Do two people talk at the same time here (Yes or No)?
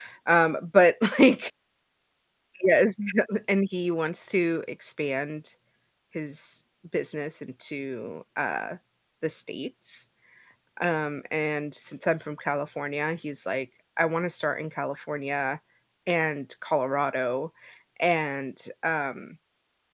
No